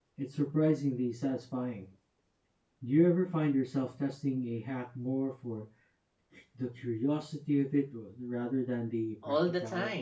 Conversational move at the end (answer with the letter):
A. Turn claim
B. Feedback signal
A